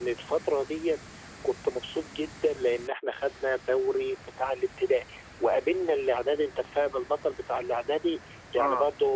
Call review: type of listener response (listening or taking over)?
listening